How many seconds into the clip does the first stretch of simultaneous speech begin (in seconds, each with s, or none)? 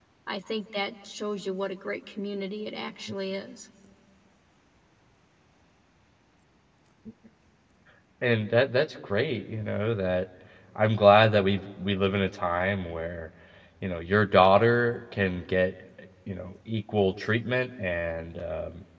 none